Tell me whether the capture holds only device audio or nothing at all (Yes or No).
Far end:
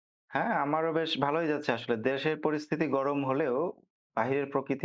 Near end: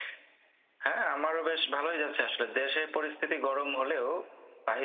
Yes